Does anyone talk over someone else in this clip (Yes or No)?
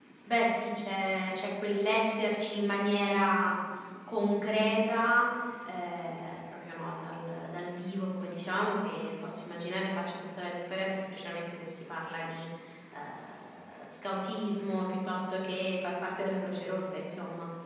No